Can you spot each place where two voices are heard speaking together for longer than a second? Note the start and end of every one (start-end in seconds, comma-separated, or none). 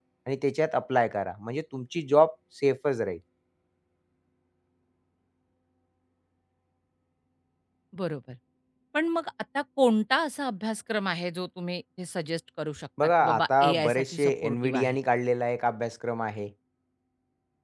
13.0-15.0